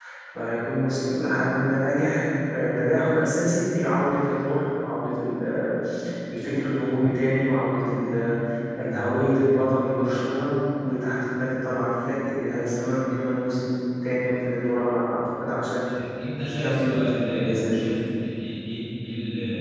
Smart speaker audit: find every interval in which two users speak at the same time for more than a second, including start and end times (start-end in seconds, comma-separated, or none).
16.5-17.9